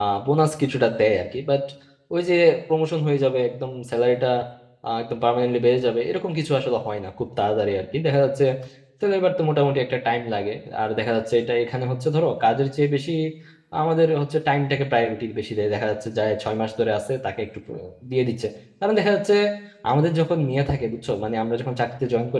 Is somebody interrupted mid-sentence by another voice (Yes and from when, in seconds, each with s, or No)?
No